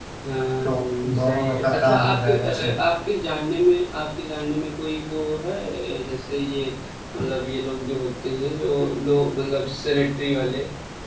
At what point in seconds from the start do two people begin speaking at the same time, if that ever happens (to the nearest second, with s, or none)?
1 s